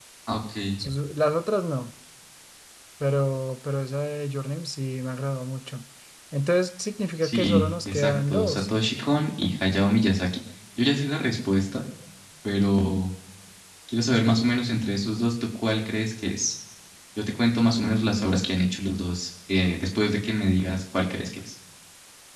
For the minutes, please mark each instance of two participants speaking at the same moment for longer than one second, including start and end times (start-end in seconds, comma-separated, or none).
7.2-8.7